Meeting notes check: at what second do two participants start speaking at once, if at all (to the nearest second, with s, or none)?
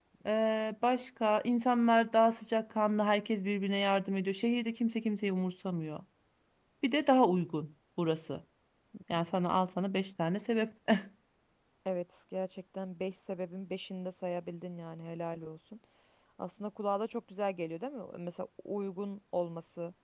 none